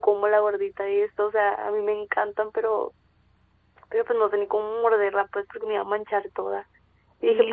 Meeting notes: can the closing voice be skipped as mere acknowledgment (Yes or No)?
No